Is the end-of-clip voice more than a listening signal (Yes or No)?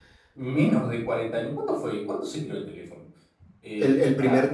Yes